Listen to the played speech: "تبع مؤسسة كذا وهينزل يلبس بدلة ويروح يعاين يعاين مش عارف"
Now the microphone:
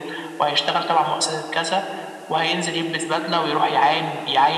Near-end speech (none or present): none